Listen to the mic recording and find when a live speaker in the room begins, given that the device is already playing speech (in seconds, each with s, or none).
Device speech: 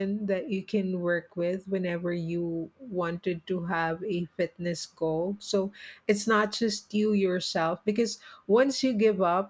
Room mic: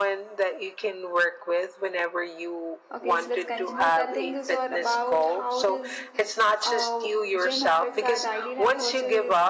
2.9 s